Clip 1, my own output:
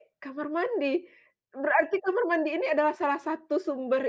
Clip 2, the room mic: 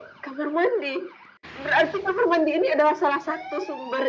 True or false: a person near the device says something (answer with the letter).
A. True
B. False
B